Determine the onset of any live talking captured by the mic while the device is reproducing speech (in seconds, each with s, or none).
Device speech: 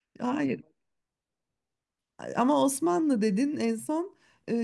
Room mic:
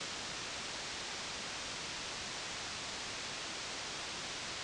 none